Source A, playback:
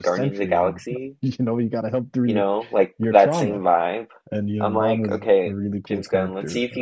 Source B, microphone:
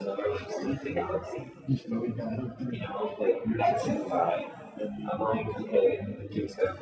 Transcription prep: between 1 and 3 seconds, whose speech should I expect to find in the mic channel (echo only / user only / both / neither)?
echo only